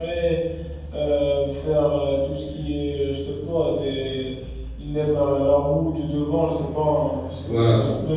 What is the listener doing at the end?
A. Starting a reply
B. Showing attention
A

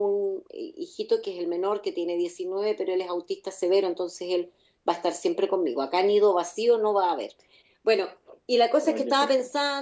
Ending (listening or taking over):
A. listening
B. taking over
A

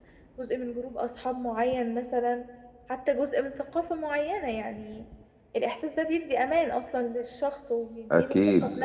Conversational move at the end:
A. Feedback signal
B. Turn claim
B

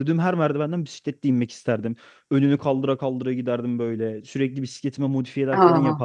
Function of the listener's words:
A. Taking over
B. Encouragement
B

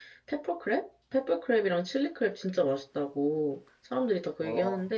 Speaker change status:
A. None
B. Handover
A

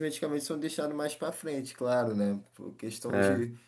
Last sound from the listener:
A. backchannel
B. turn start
A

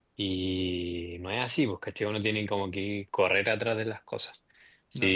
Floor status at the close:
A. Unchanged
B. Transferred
A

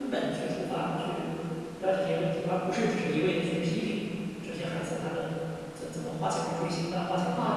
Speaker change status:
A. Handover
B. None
A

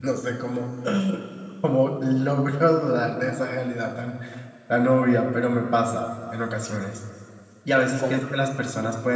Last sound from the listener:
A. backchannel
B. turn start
A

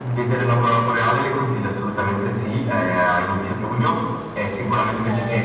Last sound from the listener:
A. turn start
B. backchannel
B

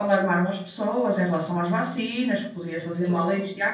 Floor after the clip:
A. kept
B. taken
A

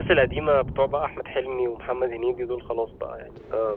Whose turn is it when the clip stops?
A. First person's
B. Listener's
B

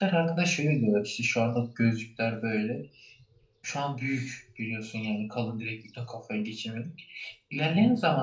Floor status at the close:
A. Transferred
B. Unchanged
B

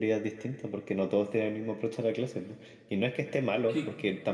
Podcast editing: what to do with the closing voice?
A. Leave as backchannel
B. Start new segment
A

